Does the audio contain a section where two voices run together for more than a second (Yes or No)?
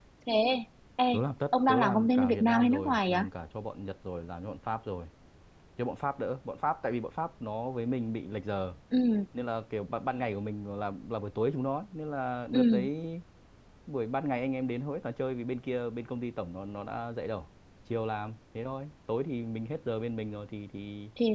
Yes